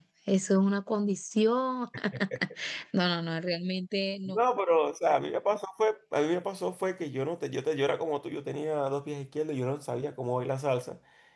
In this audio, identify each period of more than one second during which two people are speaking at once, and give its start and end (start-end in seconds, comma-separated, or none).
none